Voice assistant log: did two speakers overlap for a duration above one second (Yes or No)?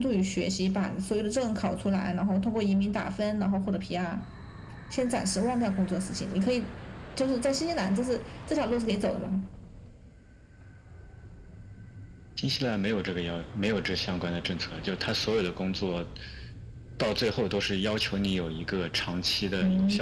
No